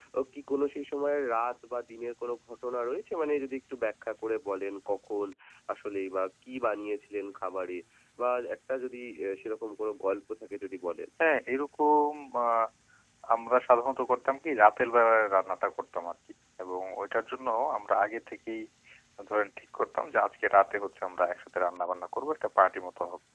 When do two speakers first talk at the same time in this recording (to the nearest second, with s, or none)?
none